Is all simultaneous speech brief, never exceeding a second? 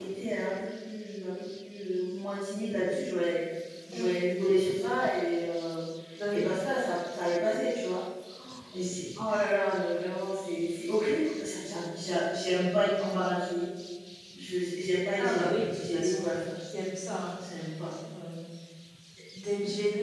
No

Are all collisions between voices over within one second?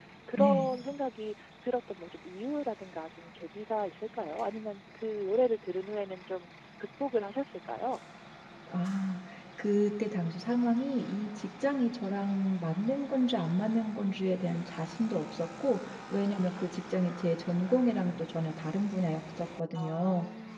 Yes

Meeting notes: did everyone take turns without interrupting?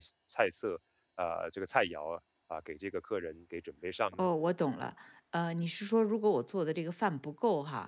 Yes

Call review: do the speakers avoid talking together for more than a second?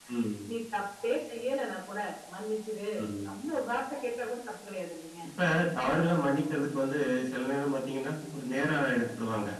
Yes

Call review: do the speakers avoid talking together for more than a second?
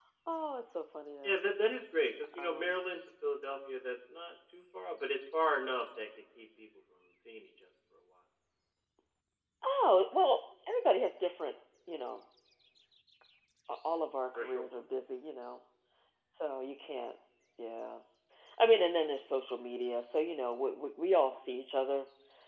Yes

